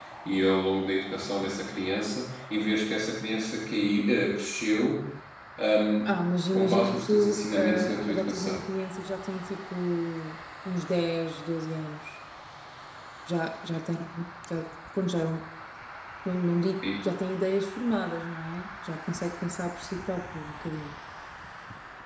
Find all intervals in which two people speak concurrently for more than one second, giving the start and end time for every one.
6.5-8.6

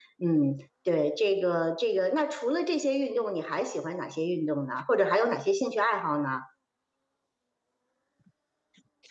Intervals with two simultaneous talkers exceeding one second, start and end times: none

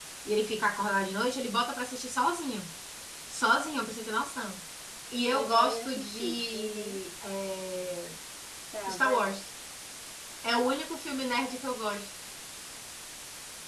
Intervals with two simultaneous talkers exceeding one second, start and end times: 5.3-7.0

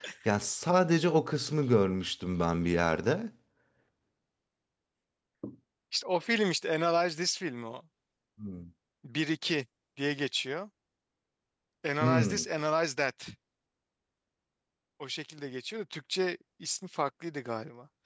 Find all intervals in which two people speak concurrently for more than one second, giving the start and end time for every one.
none

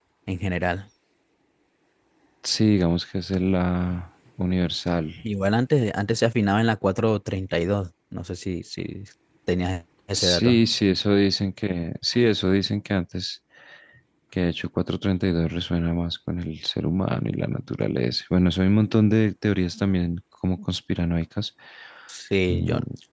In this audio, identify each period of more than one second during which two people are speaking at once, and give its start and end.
none

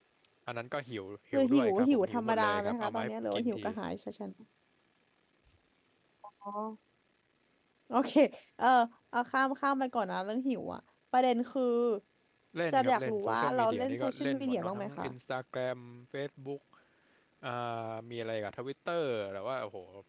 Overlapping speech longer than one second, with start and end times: 1.3-3.6, 12.7-15.1

